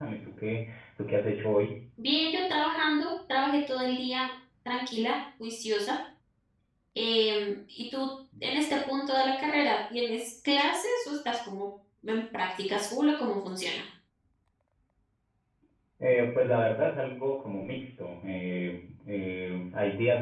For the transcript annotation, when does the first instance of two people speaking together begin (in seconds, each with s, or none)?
none